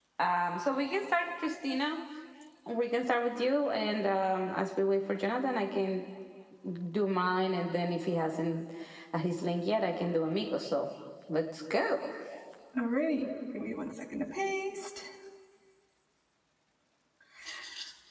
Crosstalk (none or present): none